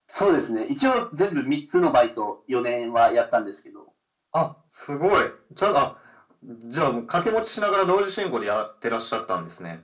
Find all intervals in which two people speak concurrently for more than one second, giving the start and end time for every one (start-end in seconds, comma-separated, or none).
none